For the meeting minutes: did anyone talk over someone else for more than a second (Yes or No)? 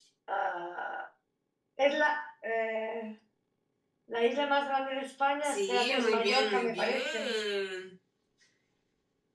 Yes